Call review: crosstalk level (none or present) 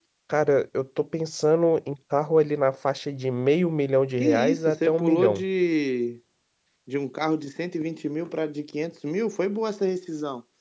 present